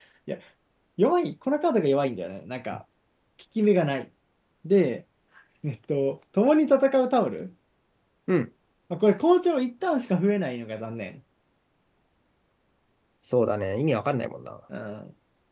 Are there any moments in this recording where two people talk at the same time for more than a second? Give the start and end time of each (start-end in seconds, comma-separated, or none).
none